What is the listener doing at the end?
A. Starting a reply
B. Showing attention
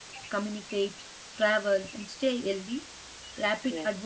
B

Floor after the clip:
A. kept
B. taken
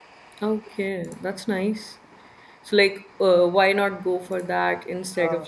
B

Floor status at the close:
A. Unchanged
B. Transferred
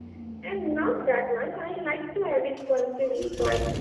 B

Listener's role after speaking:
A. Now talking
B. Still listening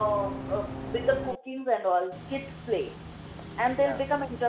B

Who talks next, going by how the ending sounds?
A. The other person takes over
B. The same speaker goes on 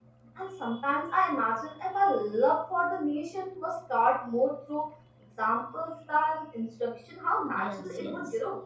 A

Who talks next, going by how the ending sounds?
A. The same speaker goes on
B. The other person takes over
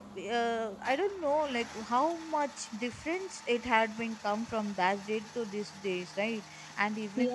A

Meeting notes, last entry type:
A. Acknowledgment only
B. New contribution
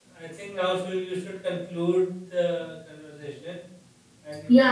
B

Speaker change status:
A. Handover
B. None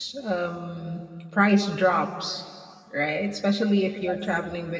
B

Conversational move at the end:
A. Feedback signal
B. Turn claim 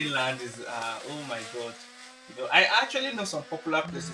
A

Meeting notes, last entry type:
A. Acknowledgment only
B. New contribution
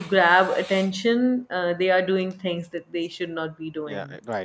B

